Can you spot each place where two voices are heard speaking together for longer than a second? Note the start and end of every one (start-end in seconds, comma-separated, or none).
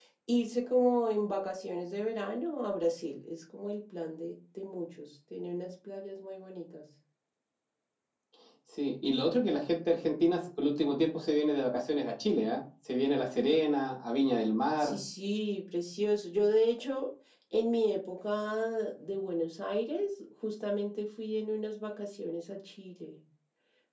none